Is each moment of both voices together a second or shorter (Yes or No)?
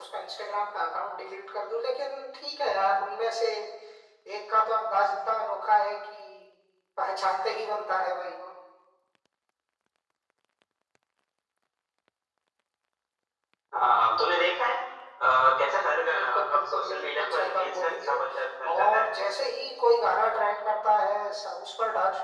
No